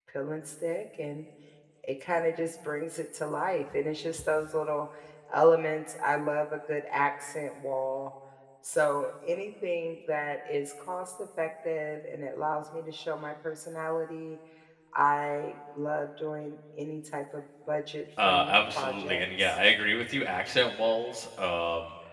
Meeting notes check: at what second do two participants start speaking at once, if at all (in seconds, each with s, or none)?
18.2 s